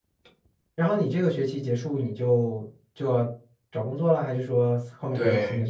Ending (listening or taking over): taking over